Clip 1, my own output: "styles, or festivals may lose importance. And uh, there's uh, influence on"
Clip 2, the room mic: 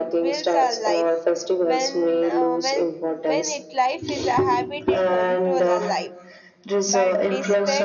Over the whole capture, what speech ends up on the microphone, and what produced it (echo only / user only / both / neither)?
both